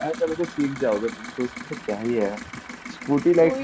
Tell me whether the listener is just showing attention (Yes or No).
Yes